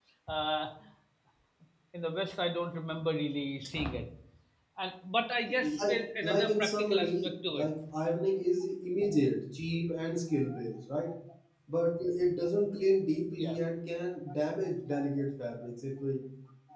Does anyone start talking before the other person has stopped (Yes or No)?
Yes